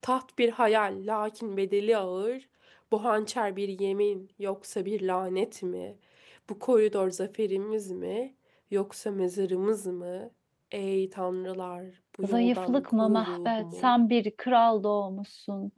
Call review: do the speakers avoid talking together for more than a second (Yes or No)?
No